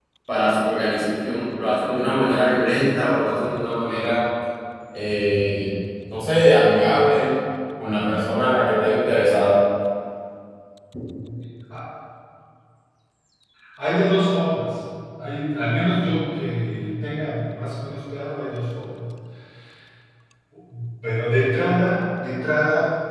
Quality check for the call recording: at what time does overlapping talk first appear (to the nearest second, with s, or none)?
none